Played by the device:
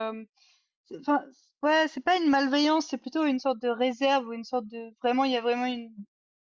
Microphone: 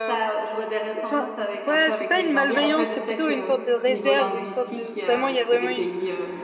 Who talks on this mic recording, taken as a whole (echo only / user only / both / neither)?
both